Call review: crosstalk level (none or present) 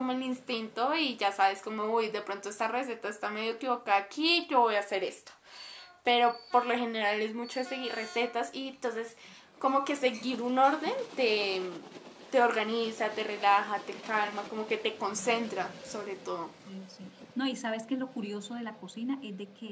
none